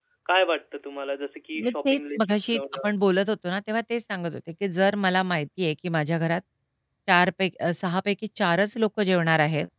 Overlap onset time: 2 s

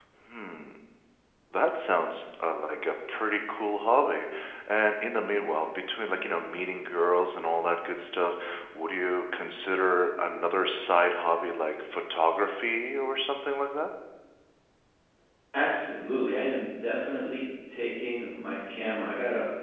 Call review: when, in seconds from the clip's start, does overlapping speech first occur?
none

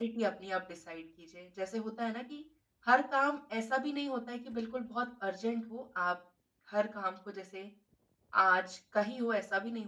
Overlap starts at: none

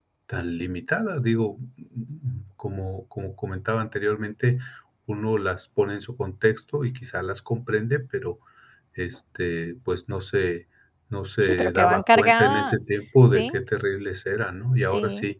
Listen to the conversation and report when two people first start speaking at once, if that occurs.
11 s

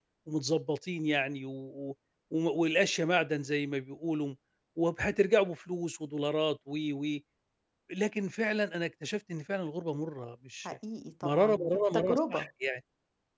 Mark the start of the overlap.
11 s

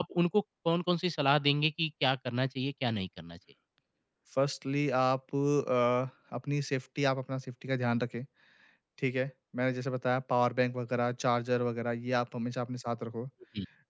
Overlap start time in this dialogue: none

